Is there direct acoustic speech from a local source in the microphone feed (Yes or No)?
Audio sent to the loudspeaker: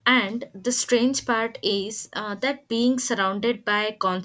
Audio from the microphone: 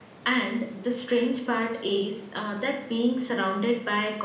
No